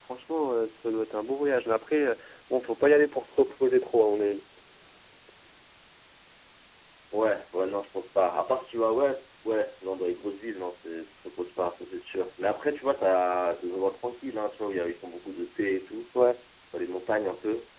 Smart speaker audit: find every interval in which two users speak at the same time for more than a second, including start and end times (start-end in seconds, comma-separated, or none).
none